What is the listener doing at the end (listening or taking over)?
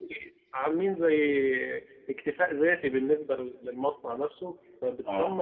listening